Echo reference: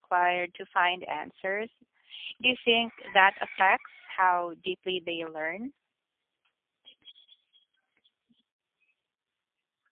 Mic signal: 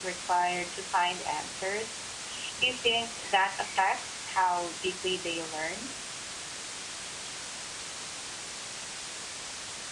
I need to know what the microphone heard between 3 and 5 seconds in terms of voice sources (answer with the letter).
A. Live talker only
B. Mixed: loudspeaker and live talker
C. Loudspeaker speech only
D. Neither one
C